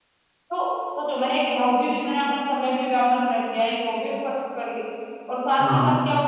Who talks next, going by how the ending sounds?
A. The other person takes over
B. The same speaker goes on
B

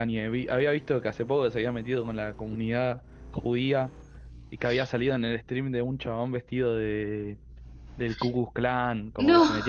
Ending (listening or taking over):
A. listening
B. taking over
A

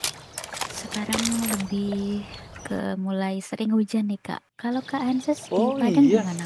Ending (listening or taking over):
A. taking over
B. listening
A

